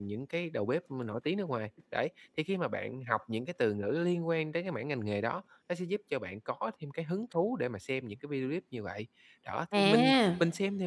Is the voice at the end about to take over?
No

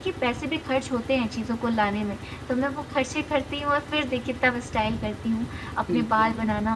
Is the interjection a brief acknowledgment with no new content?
Yes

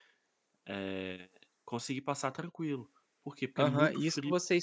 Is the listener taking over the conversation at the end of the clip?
Yes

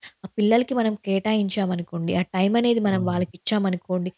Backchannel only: Yes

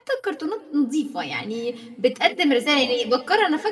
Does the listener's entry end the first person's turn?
No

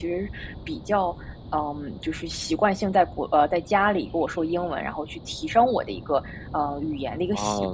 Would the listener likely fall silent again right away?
No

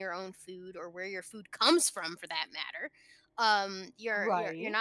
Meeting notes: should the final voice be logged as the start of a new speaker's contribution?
No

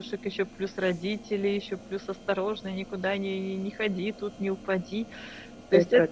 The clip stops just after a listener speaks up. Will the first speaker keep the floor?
Yes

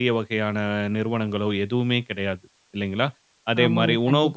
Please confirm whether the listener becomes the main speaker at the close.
No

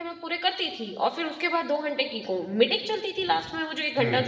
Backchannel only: Yes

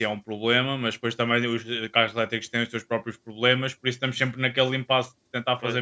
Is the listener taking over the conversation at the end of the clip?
No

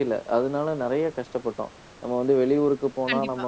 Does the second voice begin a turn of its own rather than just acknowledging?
No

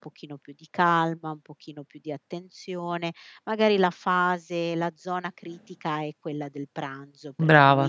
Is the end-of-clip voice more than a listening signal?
No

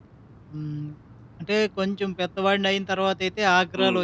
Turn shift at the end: No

